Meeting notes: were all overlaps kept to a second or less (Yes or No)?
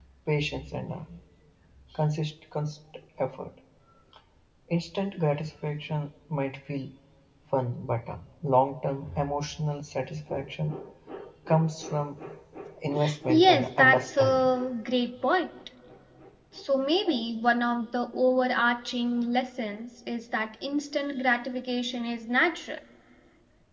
No